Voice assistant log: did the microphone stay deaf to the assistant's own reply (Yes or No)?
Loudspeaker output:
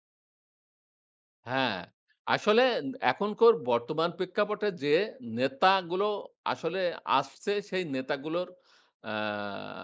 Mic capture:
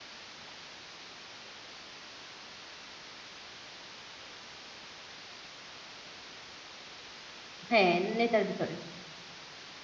Yes